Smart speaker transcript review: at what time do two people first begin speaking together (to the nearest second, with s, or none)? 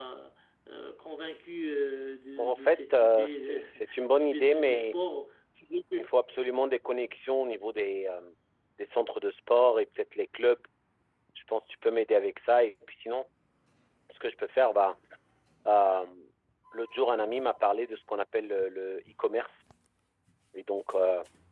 2 s